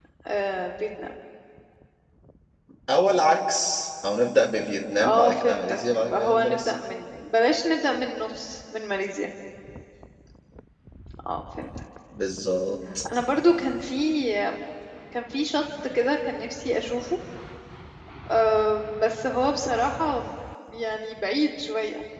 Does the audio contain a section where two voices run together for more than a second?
Yes, from 5.0 s

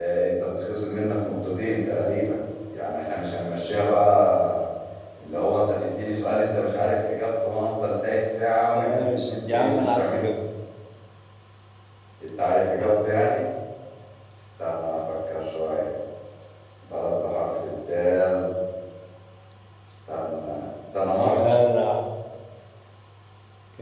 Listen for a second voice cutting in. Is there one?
Yes, from 8.7 s

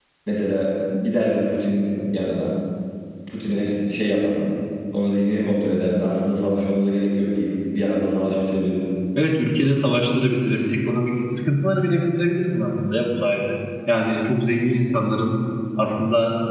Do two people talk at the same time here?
No

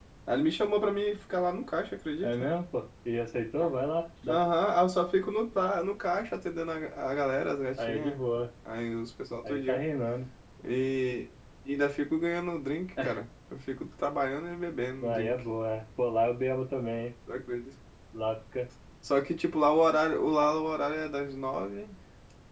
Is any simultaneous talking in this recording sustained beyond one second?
No

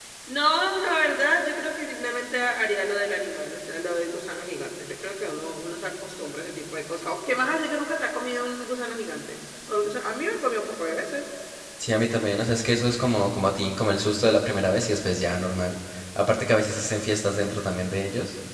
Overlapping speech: No

